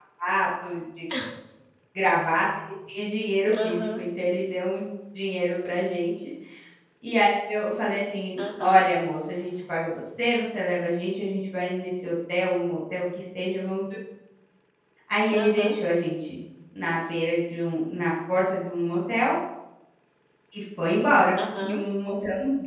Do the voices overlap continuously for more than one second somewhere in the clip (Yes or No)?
No